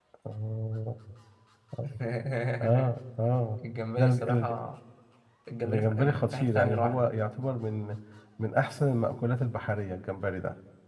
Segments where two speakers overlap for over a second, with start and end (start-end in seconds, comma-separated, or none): 5.6-7.1